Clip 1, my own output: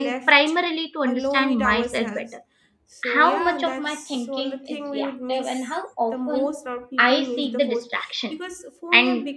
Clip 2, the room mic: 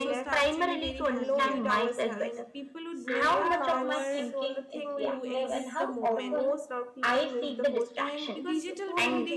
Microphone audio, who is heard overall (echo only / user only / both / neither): both